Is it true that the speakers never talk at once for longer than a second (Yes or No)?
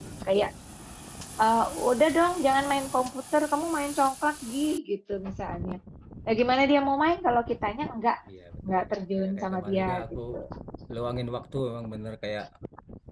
No